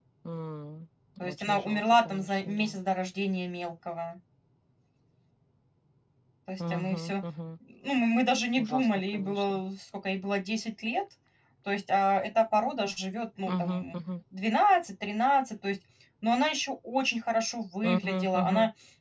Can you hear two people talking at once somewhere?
Yes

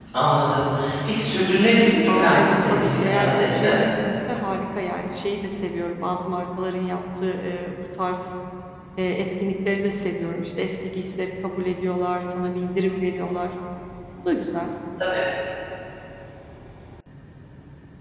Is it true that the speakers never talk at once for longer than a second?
No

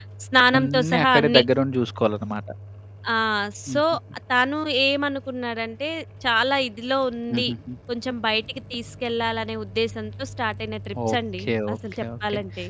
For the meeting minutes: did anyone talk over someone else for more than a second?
Yes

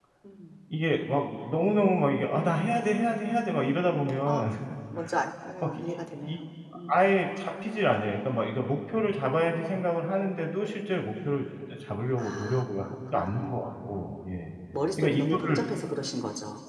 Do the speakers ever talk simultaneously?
Yes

